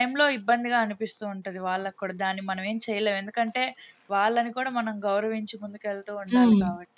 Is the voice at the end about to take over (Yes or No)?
Yes